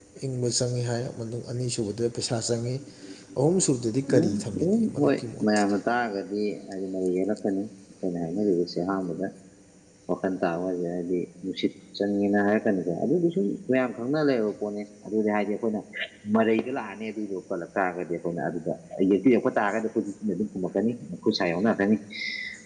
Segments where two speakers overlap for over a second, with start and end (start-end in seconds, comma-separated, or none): 4.1-5.8